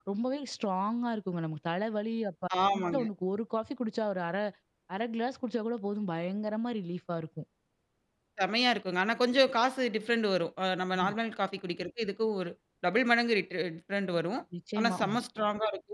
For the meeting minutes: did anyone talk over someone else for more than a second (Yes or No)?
No